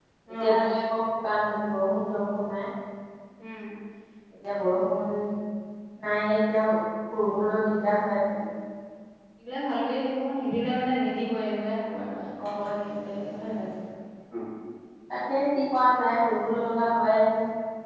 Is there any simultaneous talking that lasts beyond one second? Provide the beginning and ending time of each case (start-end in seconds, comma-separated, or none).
none